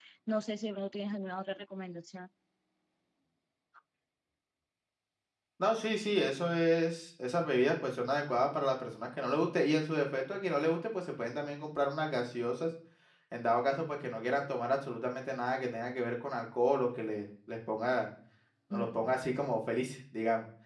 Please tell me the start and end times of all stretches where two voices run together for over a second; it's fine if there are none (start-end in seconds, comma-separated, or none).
none